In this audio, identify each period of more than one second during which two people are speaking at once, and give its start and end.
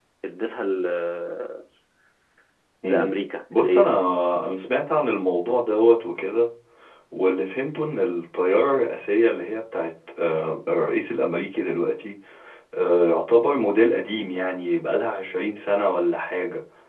none

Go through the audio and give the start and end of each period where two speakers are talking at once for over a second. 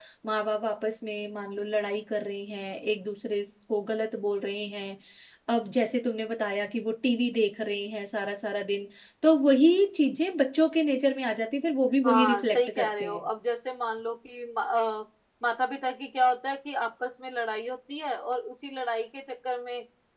12.0-13.3

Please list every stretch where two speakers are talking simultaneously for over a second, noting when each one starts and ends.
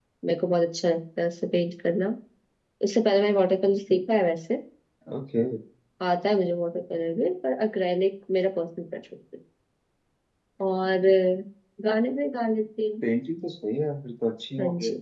none

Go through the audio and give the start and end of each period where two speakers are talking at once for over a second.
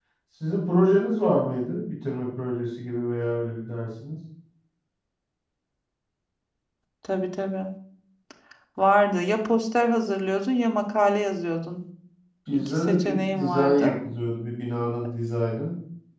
12.5-13.9

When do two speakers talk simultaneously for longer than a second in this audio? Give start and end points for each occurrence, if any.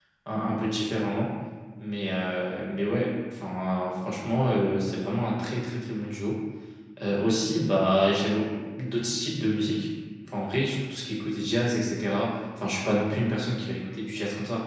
none

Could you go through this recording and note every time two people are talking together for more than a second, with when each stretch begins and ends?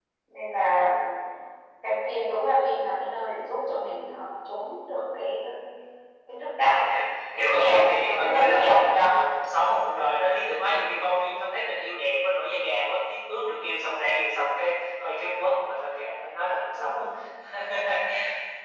7.4-9.1

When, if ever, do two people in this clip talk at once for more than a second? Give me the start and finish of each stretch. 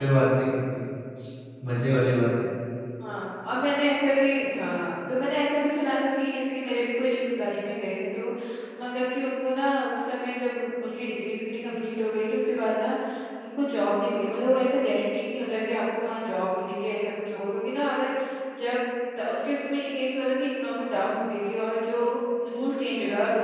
none

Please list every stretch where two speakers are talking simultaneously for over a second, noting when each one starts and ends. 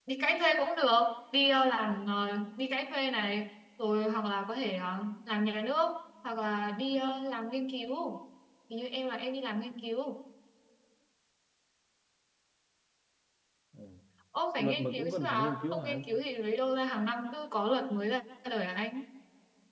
14.6-16.0

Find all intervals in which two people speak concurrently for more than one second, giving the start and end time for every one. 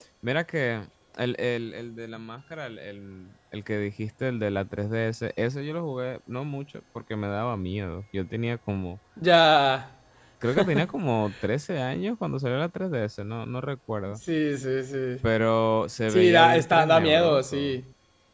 16.1-17.8

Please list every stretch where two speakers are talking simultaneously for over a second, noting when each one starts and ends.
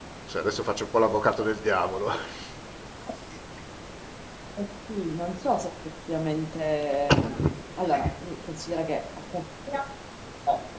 none

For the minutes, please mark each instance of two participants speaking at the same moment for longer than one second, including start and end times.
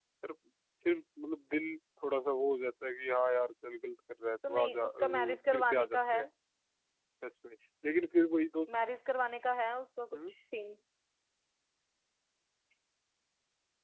4.5-6.2

